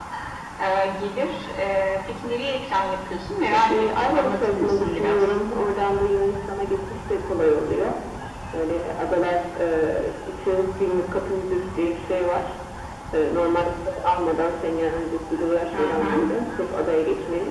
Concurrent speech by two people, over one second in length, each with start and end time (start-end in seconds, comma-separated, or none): 3.5-5.3